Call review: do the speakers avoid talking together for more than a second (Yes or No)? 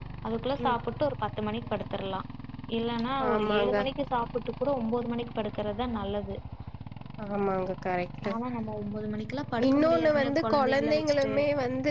No